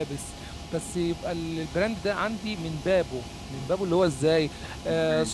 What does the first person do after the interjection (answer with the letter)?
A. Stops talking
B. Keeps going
B